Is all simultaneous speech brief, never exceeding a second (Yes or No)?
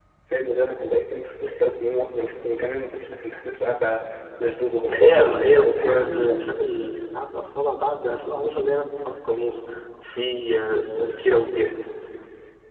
No